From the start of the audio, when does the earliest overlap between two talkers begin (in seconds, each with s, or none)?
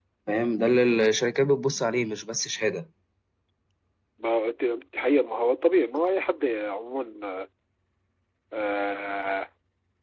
none